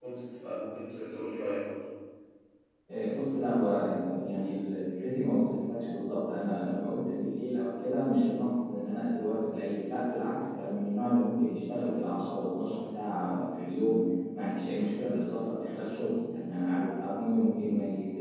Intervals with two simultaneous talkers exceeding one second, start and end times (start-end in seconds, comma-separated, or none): none